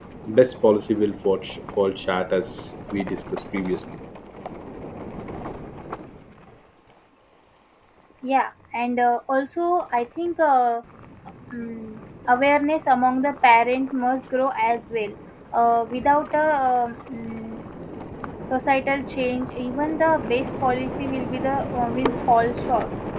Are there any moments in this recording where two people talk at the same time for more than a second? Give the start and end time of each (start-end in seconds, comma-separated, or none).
none